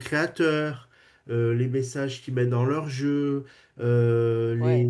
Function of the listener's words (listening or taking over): listening